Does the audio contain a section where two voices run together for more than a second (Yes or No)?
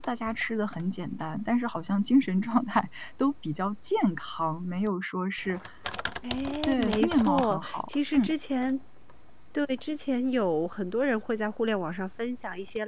Yes